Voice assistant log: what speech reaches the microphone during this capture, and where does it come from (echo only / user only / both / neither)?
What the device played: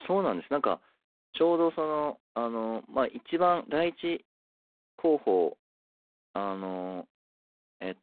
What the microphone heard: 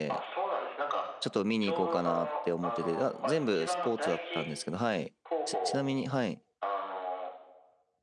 both